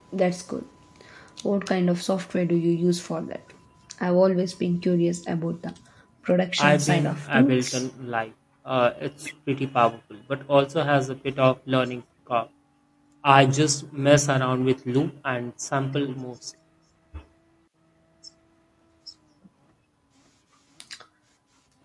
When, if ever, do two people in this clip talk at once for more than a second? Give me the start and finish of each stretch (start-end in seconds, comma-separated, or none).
6.6-7.8